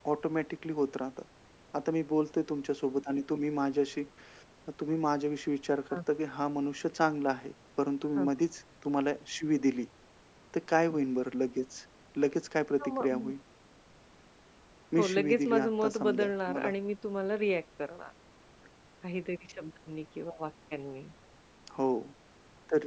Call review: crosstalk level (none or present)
present